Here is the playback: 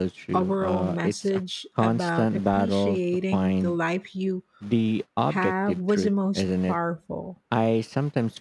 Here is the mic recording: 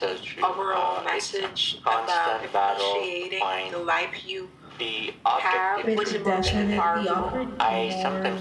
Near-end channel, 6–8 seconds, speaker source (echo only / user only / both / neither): both